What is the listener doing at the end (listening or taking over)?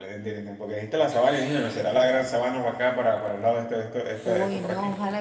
taking over